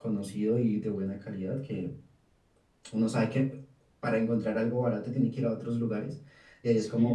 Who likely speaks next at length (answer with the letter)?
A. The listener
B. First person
A